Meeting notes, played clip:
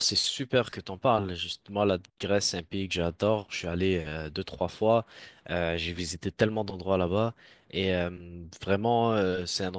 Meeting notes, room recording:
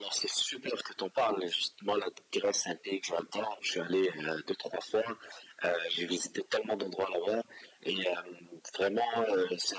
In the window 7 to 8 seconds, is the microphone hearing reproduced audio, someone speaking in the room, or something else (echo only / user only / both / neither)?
echo only